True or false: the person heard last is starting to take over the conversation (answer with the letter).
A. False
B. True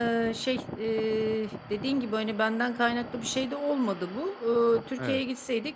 A